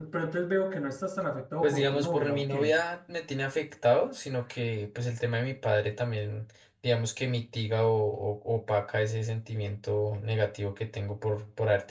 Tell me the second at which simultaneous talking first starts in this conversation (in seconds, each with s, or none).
1.6 s